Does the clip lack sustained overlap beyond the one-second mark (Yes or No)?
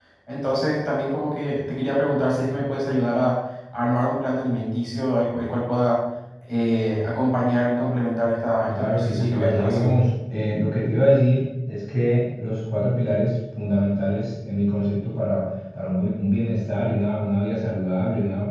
No